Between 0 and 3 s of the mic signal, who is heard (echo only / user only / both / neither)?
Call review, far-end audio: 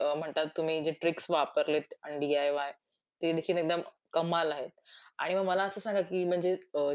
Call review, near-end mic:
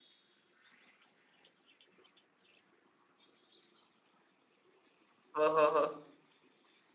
neither